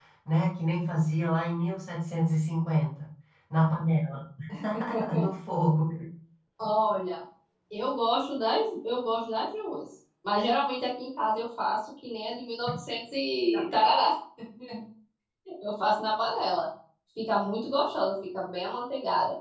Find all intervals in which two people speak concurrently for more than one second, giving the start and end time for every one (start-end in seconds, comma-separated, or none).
none